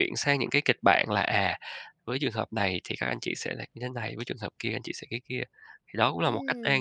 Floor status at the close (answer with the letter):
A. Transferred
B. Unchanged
A